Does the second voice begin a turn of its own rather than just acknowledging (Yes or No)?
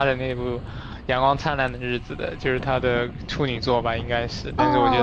Yes